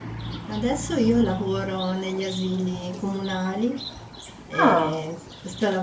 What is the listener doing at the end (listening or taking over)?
listening